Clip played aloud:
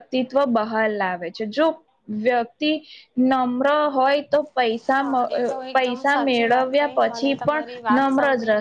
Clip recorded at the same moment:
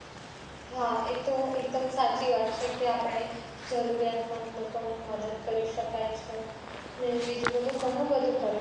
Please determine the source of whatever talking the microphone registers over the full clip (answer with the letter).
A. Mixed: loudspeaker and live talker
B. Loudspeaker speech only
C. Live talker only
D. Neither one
C